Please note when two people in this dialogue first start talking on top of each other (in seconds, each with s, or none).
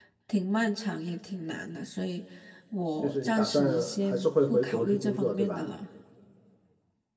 3.0 s